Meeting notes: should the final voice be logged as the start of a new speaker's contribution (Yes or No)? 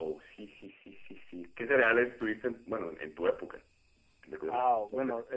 Yes